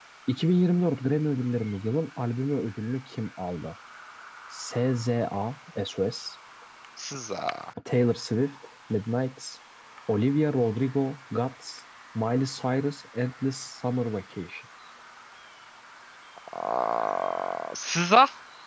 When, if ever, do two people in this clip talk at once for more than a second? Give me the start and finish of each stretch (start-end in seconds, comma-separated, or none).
none